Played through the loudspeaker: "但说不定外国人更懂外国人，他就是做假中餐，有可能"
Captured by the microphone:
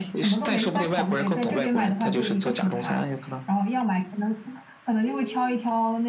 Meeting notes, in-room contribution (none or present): present